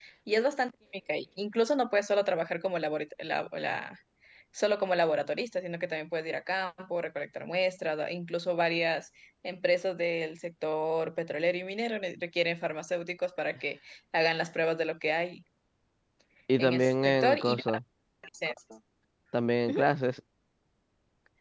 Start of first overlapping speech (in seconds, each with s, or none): 16.6 s